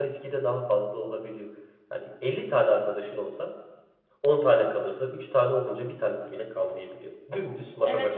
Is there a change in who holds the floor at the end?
Yes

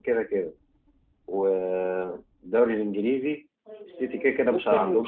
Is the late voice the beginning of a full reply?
Yes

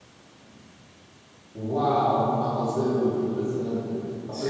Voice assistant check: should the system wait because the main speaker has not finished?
Yes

